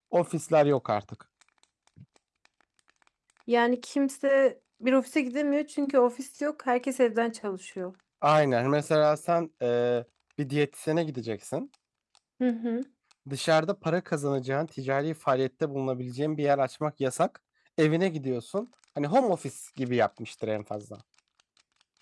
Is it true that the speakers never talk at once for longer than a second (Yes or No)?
Yes